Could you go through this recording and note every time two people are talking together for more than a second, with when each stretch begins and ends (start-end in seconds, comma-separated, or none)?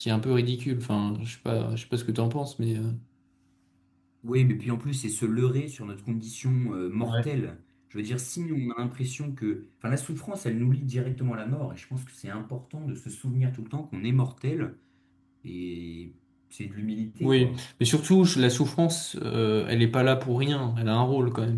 none